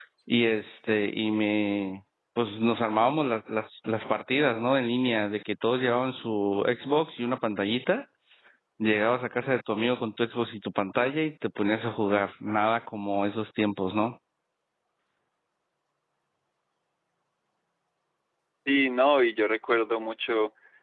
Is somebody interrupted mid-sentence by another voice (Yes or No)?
No